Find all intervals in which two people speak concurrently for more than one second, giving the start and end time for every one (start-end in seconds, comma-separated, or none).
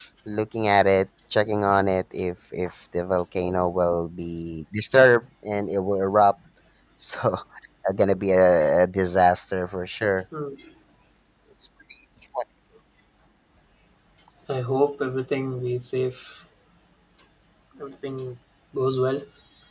none